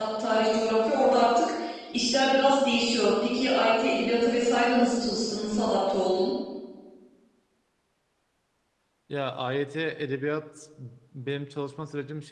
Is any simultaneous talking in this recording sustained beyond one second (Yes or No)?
No